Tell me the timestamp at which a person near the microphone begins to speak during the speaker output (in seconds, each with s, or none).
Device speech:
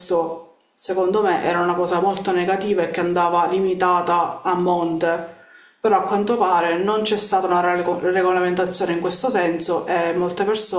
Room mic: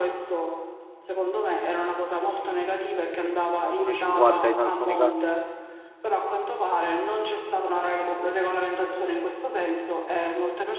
3.6 s